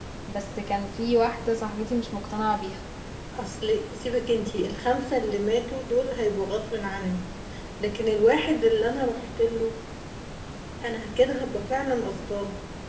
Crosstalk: none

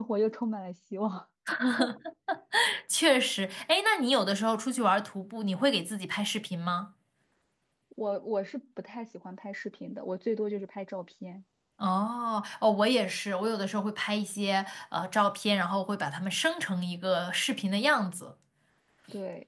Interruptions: none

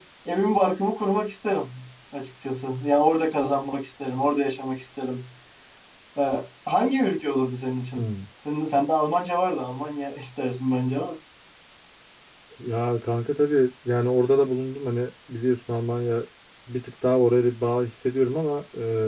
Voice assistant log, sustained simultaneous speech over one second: none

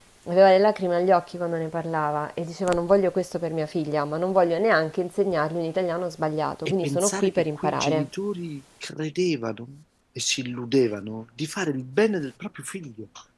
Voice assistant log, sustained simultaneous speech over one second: present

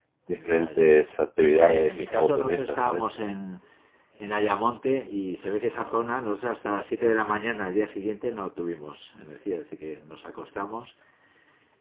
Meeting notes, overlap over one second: present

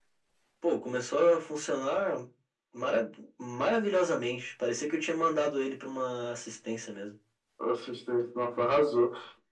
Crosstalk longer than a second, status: none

